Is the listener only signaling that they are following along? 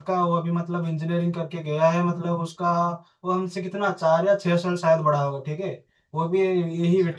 Yes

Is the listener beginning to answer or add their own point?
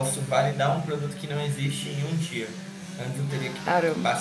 No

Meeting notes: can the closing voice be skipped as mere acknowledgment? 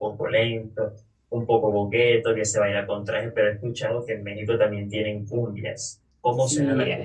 No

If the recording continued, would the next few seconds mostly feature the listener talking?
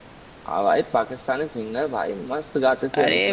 Yes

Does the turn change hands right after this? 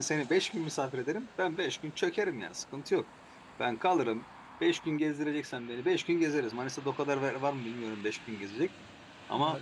No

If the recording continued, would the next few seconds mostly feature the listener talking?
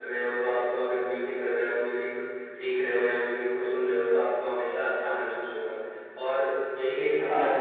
No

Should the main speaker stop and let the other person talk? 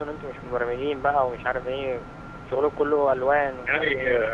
Yes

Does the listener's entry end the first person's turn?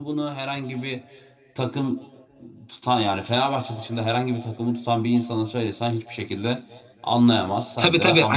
Yes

